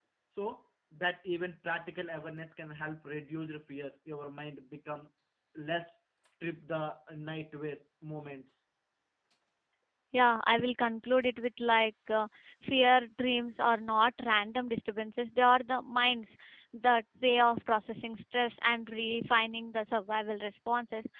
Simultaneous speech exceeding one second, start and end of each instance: none

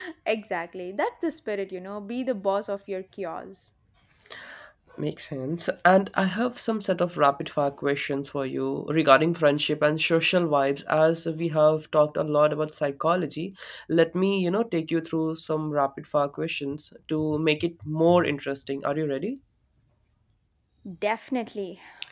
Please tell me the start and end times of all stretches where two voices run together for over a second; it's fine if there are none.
none

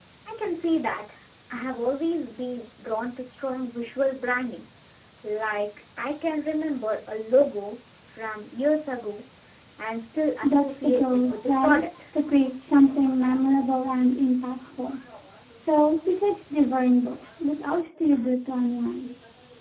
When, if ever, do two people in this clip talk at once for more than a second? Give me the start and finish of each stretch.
10.4-11.8

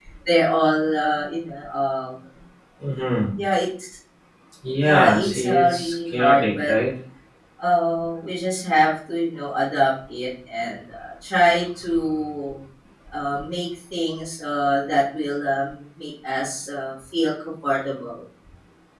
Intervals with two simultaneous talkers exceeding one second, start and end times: 4.8-6.7

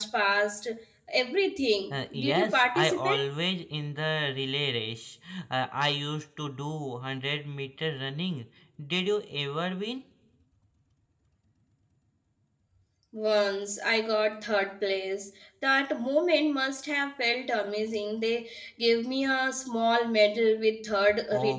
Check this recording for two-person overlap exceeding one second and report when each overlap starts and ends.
1.9-3.2

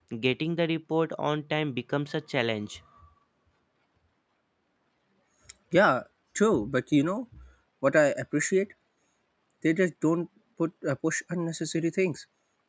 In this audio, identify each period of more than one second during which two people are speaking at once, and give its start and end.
none

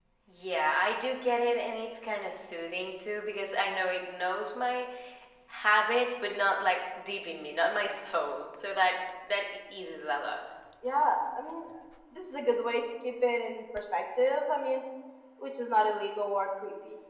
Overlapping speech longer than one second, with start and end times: none

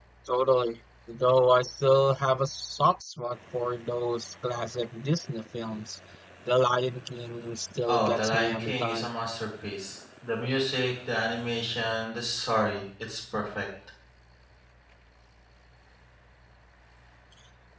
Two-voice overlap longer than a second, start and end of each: 7.9-9.1

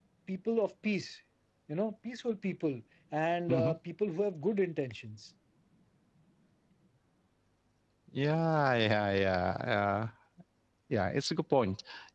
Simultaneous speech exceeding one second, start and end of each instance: none

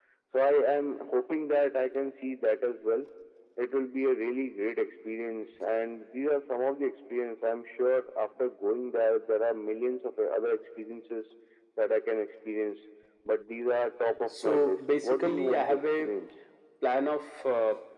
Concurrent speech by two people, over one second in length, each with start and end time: 14.3-16.1

